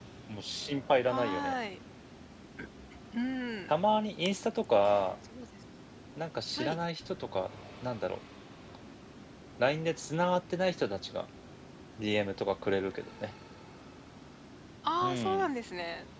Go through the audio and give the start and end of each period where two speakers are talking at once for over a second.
none

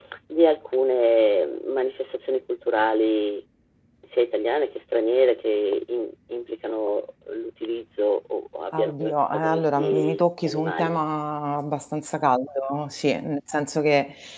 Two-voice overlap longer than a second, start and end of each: 8.7-11.0

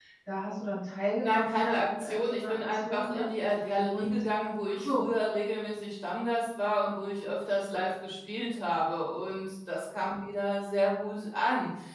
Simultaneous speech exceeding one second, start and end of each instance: 1.2-3.3

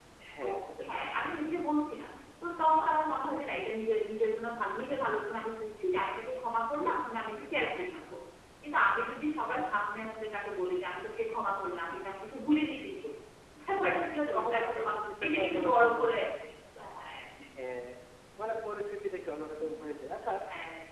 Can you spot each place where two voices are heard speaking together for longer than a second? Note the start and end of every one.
14.3-16.1

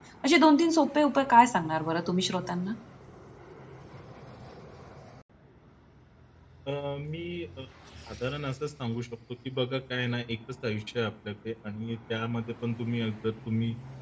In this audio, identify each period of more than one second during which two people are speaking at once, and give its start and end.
none

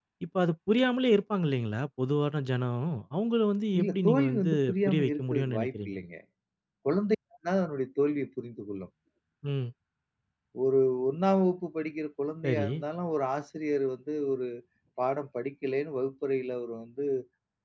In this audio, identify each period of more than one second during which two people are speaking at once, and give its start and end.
3.8-6.0

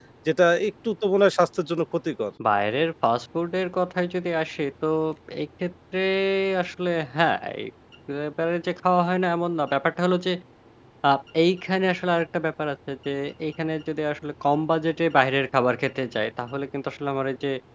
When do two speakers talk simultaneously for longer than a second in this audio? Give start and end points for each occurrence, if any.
none

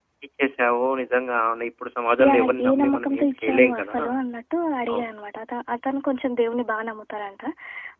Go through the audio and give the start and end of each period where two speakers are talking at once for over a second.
2.2-4.0

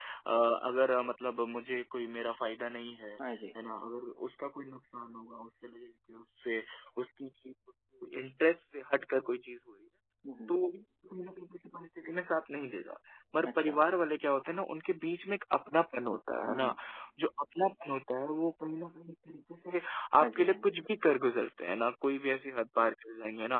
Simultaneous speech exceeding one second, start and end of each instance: none

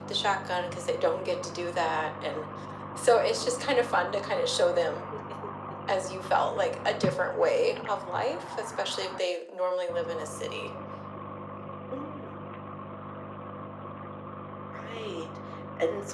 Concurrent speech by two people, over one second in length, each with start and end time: none

